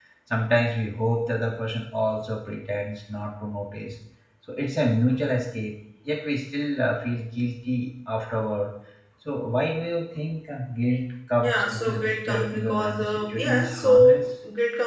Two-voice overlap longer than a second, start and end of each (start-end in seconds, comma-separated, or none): 11.4-14.2